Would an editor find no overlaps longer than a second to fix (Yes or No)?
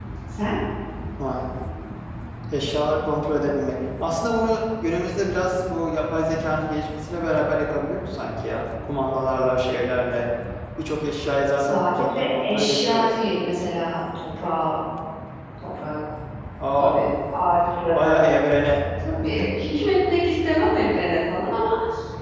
No